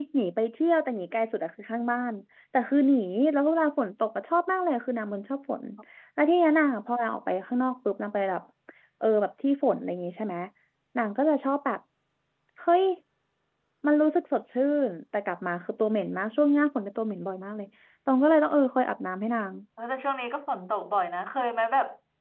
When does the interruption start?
none

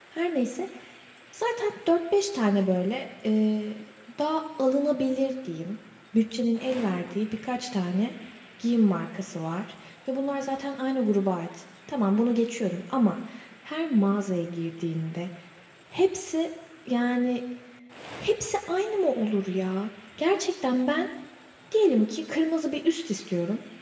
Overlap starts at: none

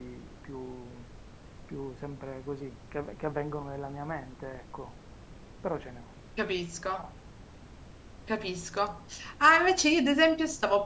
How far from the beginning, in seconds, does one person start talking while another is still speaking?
none

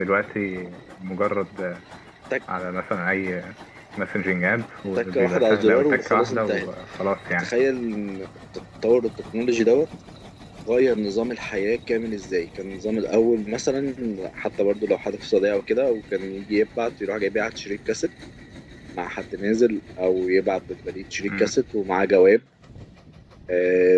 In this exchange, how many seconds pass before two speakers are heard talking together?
5.0 s

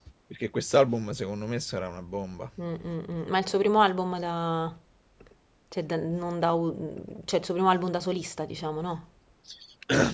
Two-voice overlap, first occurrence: none

